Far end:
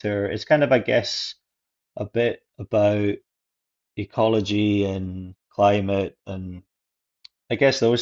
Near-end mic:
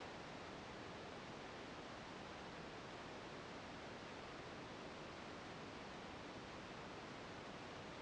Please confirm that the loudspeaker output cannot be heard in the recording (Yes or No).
Yes